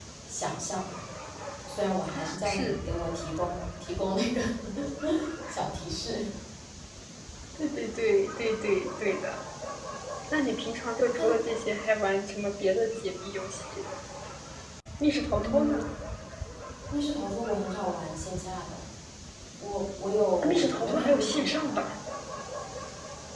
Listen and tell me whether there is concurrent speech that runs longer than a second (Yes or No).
Yes